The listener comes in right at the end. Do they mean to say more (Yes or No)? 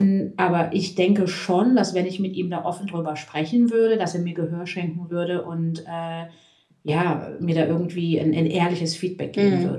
Yes